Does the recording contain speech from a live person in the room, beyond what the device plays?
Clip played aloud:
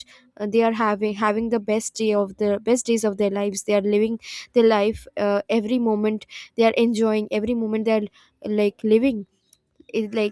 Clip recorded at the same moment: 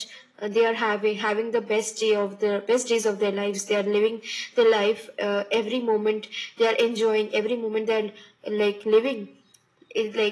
No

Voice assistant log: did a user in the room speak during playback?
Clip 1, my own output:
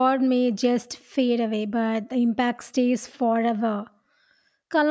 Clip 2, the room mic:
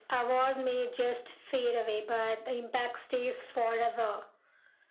No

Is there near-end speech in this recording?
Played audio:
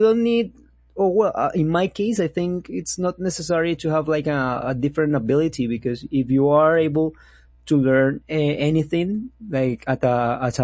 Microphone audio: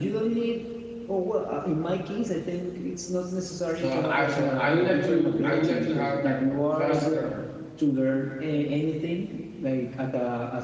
Yes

